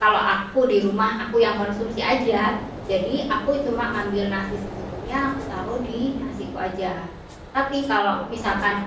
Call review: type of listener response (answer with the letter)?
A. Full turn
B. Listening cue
B